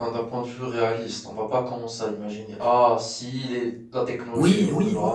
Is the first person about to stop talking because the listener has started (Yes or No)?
Yes